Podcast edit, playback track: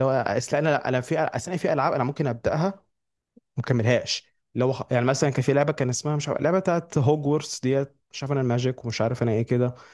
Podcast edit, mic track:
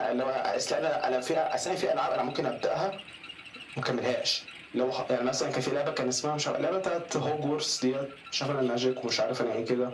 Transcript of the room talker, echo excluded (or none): none